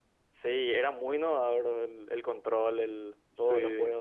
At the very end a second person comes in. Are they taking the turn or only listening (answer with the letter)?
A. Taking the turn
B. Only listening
A